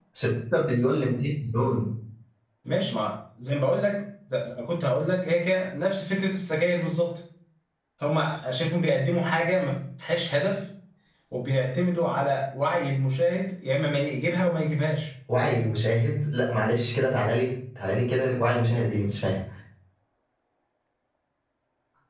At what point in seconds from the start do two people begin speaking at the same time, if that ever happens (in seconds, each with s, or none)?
none